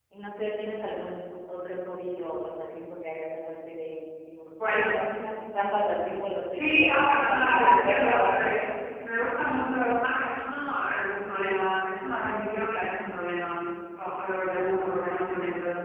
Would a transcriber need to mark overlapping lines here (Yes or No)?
Yes